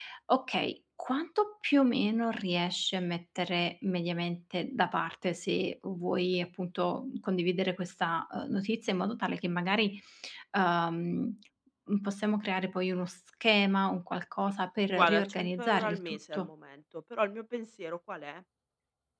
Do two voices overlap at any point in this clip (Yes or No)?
Yes